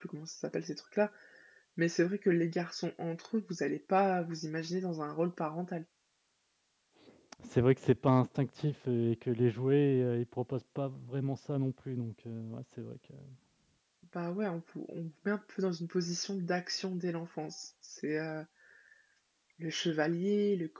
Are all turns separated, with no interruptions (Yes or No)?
Yes